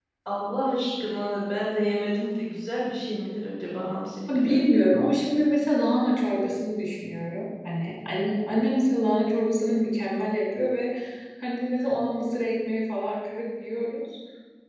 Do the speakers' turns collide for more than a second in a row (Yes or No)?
No